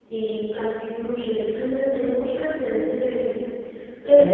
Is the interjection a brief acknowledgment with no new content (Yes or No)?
Yes